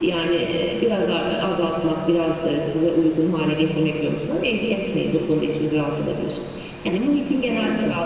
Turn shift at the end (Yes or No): No